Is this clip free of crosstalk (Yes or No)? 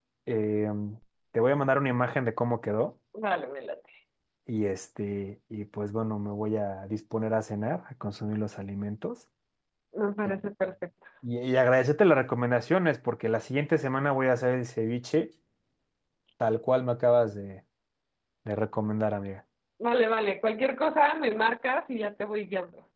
Yes